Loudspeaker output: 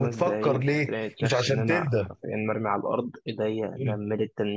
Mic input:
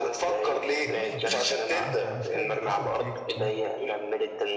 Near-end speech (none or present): present